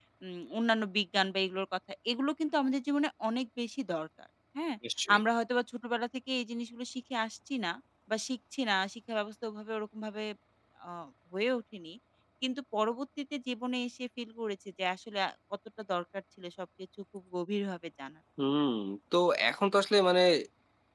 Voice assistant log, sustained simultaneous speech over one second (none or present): none